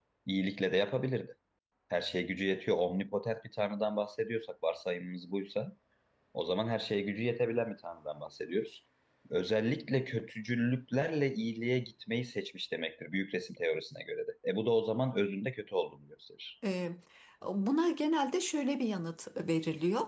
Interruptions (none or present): none